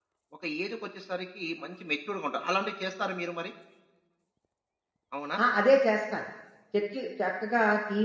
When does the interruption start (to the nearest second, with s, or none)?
none